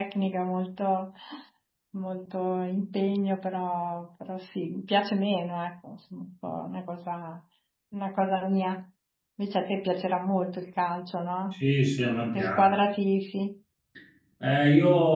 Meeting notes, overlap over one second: none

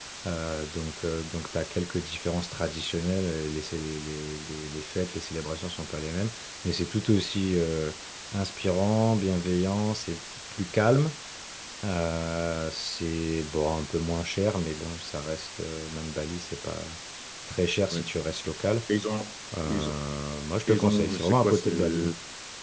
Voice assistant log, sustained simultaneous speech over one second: present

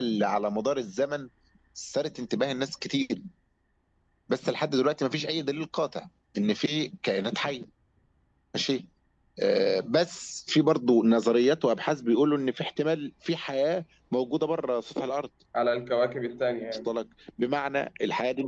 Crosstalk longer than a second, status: none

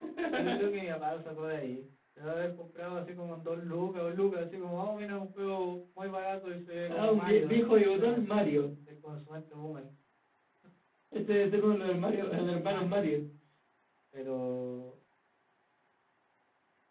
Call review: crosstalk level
present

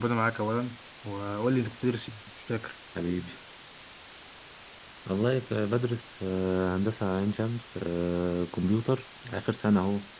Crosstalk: none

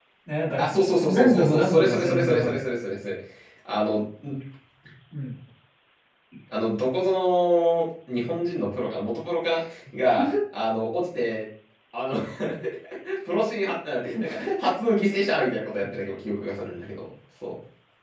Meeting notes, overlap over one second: present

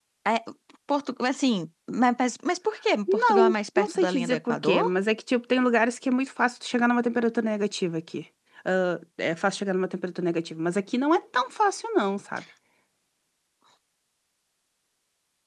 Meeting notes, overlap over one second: present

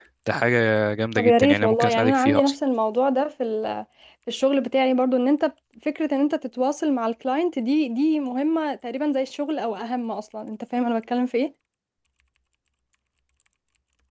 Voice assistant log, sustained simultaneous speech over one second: present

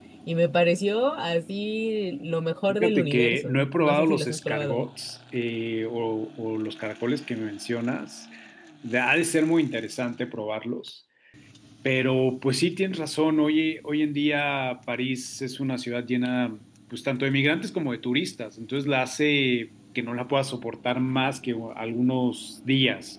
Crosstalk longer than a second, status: present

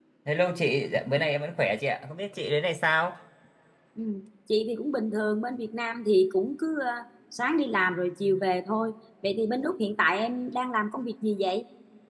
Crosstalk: none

